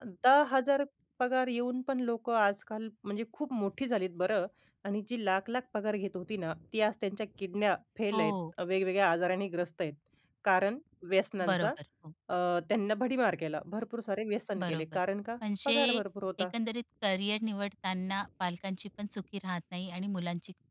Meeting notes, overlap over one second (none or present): none